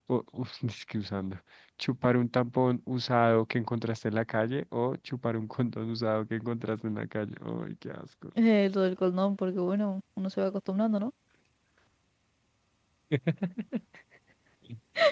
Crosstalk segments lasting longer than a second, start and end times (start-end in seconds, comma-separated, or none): none